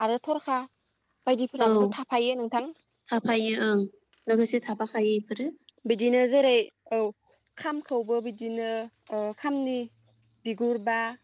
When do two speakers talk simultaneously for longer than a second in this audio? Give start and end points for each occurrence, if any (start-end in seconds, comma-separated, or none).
none